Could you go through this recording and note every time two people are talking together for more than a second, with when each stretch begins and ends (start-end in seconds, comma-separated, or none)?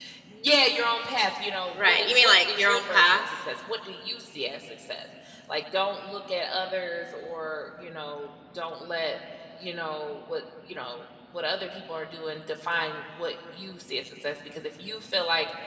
1.7-3.2